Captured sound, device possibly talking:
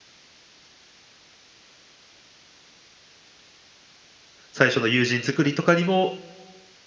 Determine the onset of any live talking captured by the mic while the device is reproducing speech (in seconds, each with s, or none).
4.5 s